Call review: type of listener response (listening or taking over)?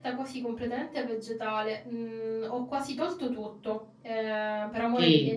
taking over